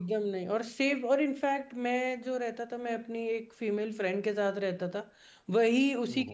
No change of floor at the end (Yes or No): Yes